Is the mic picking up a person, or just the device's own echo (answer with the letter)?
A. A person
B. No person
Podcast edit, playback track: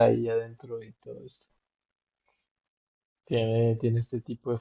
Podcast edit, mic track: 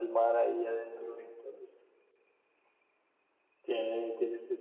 B